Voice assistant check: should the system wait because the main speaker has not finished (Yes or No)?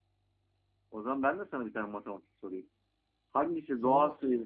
Yes